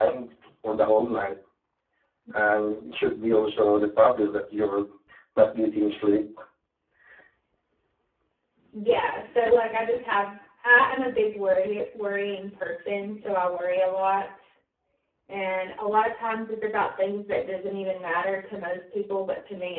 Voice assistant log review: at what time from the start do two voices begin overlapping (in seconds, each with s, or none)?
none